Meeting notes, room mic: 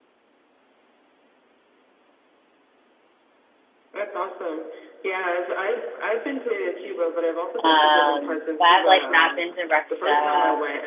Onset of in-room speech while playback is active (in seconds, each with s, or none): 7.6 s